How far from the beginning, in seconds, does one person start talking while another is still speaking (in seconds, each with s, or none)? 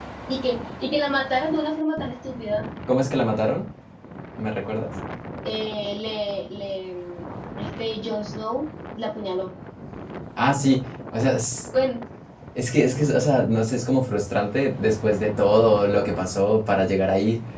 none